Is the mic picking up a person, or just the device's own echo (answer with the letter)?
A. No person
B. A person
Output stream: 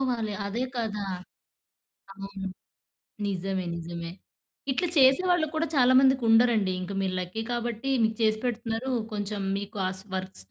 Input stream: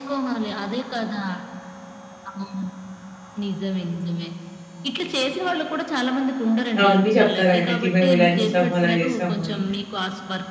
B